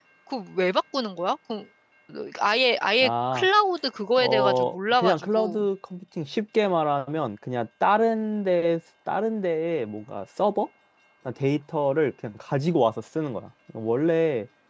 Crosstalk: present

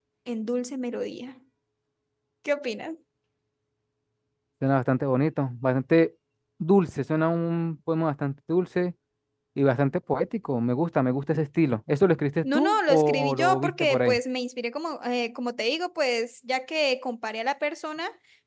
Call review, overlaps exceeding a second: present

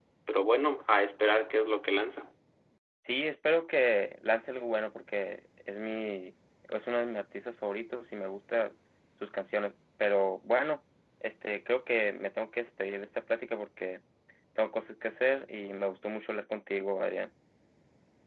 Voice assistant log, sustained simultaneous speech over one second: none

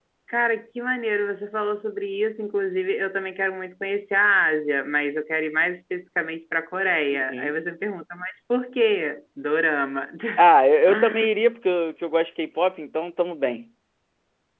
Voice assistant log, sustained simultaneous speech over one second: none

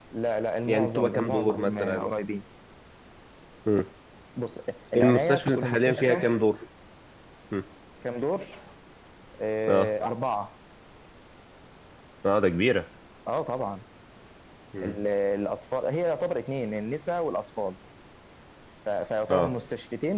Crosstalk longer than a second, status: present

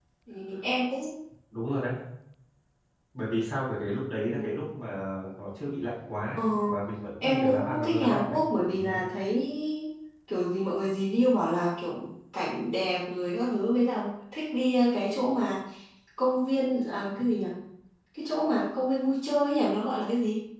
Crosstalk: present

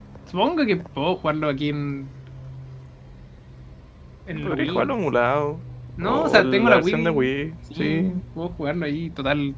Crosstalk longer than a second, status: present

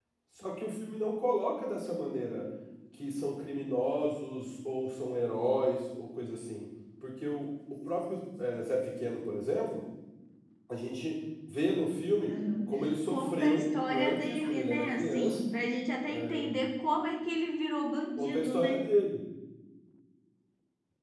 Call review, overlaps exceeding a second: present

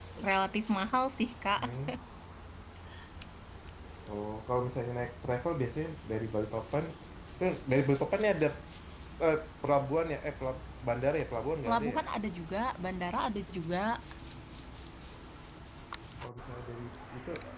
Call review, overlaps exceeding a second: none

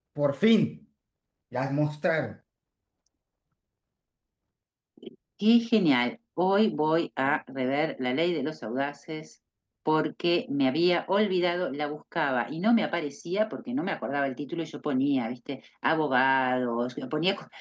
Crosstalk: none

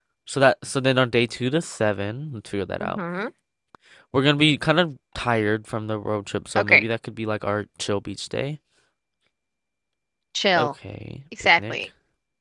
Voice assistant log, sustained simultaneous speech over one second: none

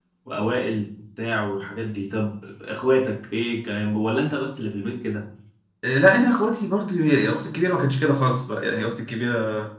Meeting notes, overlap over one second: none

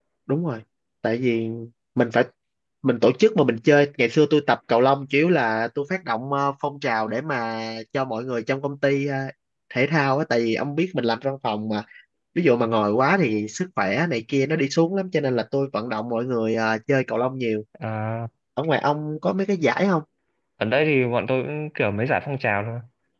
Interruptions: none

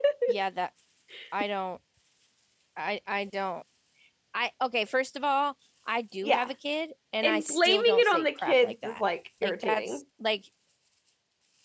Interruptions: present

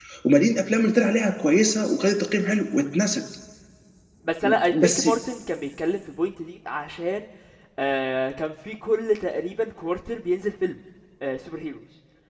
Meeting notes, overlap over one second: none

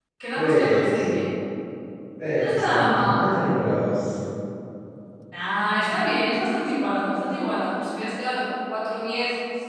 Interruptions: present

